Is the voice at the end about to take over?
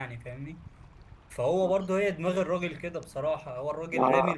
No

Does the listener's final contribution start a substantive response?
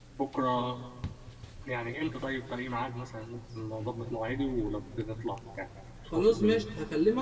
Yes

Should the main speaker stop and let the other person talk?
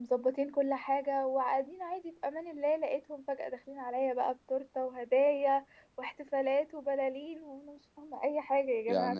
Yes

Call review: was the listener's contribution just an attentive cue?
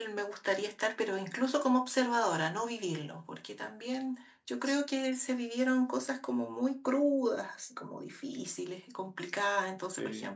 Yes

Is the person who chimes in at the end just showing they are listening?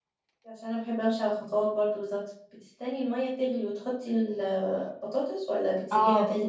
No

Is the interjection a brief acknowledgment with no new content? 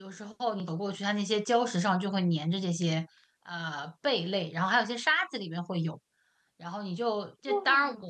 Yes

